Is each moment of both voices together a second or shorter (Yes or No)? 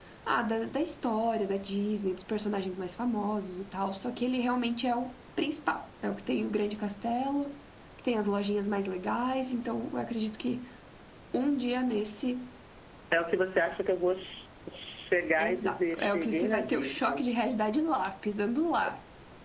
No